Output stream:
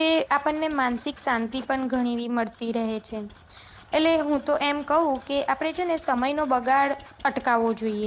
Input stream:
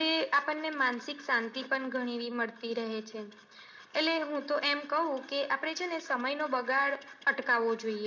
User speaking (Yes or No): No